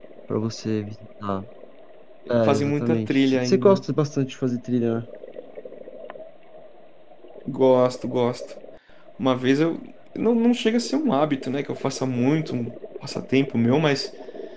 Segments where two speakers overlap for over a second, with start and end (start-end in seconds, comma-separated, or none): 2.4-3.8